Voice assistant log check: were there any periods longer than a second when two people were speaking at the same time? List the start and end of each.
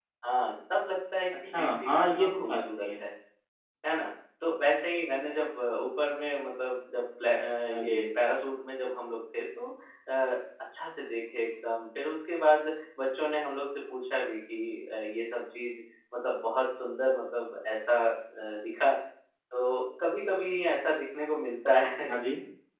1.6-3.0

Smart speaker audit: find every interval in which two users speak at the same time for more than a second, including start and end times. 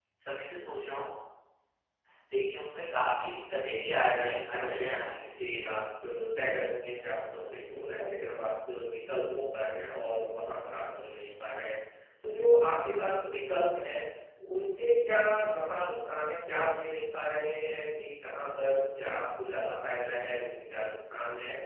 3.6-4.9

